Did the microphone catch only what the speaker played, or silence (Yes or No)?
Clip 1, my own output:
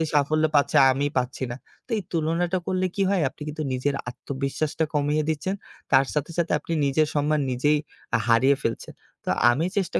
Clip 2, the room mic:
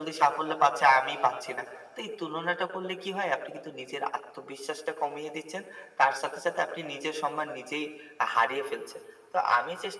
Yes